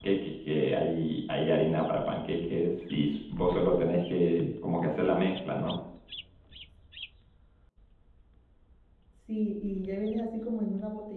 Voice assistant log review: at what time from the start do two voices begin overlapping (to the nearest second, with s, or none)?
none